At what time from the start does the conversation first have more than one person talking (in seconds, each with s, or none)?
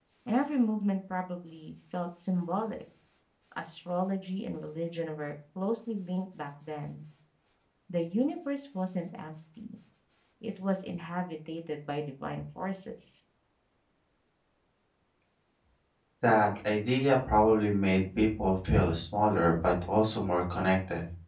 none